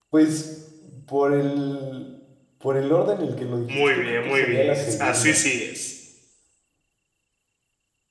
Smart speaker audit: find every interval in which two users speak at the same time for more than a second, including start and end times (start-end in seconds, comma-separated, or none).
3.7-5.4